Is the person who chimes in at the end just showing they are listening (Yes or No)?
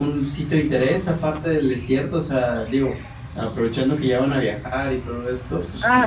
No